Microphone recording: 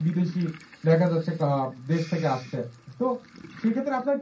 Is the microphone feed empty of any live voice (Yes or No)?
No